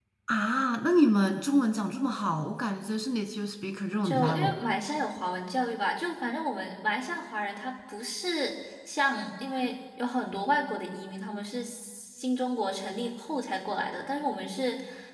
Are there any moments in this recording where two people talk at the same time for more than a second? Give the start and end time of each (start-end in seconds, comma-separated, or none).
none